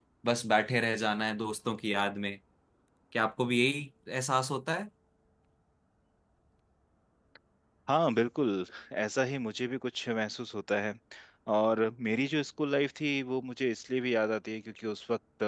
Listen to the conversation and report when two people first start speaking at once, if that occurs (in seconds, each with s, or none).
none